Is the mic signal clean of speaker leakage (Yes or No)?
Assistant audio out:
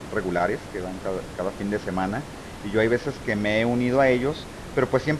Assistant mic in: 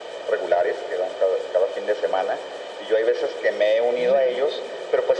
No